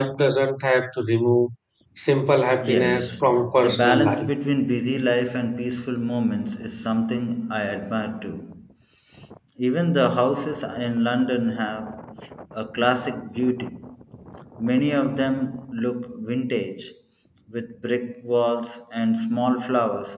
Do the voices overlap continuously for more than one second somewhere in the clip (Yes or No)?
Yes